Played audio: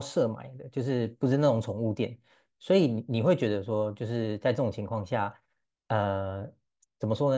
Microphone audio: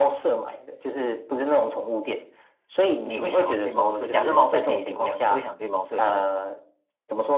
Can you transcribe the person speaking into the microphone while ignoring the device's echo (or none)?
你会想要去猫舍，假设猫舍可以领养，你会想去猫舍领养吗？